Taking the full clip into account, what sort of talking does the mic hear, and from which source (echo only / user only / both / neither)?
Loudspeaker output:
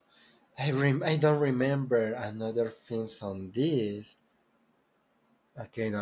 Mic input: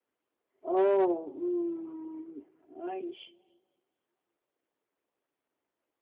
user only